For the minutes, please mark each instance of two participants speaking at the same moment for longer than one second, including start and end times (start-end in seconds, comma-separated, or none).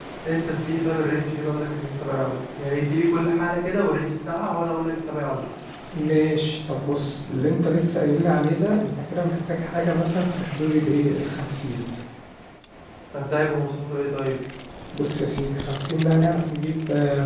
none